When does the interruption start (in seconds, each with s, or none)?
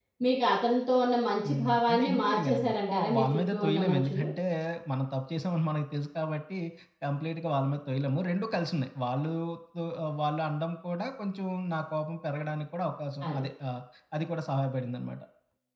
1.4 s